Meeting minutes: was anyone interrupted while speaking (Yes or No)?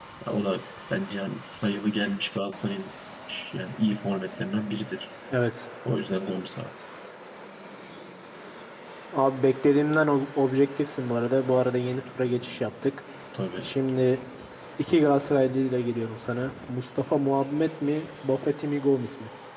No